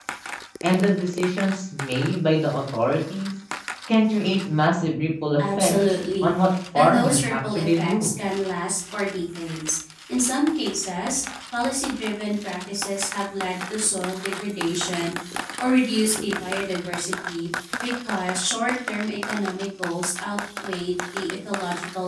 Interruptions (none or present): present